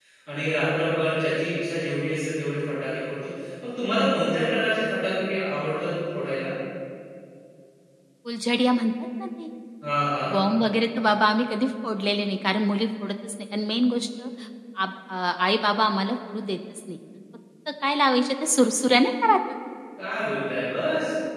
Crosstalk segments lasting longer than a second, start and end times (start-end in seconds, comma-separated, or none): none